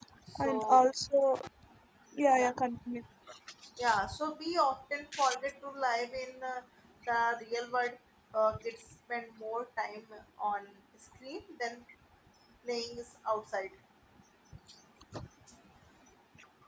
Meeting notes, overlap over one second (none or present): none